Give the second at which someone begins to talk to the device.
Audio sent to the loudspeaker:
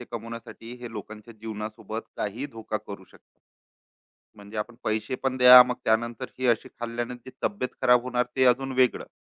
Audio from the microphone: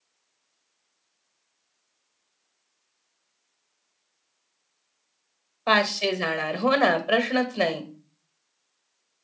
5.6 s

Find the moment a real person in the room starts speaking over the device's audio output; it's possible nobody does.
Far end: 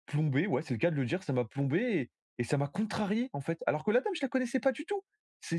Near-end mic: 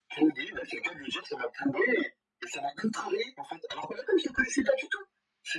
none

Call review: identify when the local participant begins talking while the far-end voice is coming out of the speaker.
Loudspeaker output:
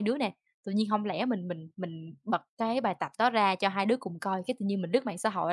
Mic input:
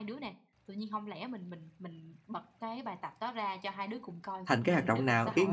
4.5 s

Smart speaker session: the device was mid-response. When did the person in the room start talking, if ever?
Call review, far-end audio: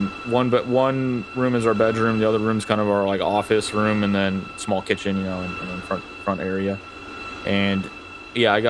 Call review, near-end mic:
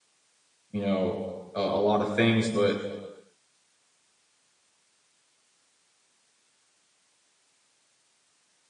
0.7 s

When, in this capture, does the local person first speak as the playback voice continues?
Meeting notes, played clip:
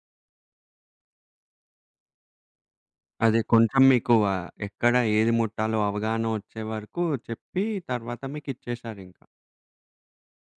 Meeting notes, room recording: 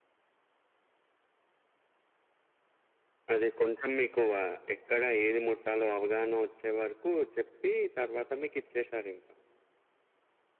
none

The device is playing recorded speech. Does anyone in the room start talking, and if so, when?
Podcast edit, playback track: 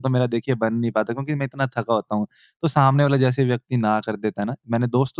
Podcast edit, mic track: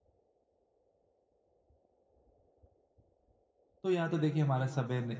3.8 s

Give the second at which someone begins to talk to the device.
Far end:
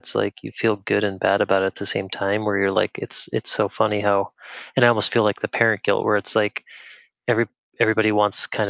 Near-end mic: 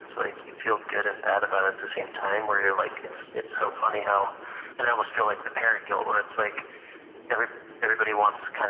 none

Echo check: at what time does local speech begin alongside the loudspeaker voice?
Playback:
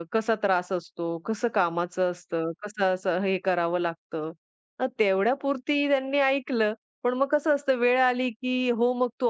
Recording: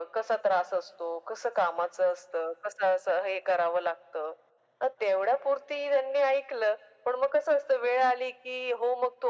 none

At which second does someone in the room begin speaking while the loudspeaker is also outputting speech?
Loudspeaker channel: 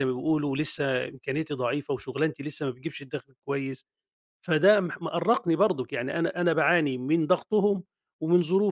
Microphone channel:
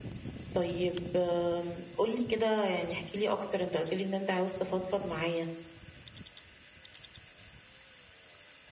0.5 s

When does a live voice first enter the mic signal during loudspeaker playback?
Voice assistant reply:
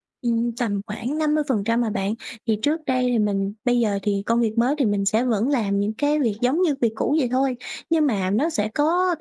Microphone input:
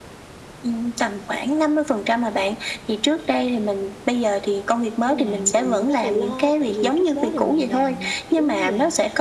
5.0 s

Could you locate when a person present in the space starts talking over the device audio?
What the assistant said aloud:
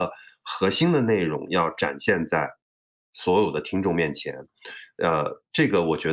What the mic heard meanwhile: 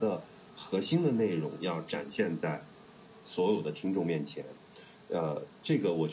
none

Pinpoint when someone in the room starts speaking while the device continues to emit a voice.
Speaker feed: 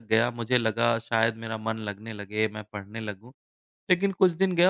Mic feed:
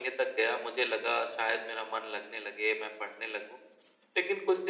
none

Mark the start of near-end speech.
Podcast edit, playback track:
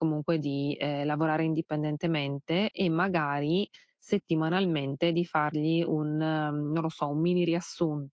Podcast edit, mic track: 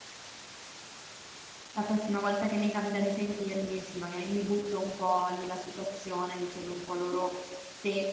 1.7 s

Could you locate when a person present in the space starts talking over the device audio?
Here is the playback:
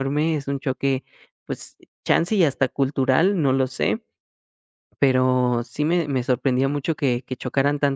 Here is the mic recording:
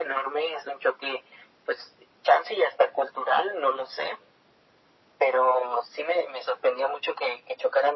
none

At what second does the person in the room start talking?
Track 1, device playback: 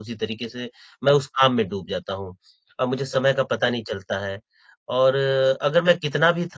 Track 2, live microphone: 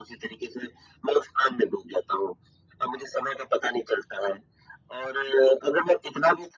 none

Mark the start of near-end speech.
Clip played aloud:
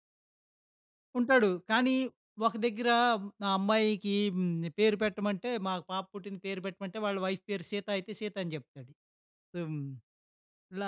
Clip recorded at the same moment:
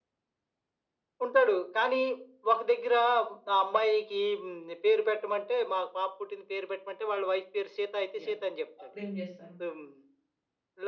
8.2 s

